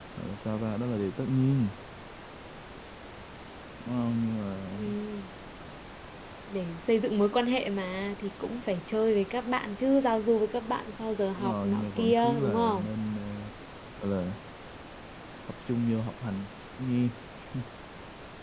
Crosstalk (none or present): present